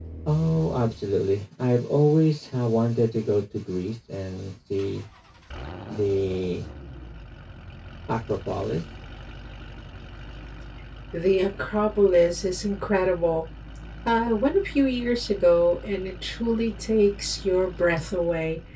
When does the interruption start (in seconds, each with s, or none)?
none